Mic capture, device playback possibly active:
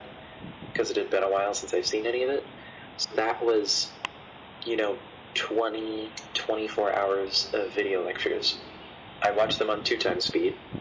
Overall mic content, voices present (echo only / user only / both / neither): echo only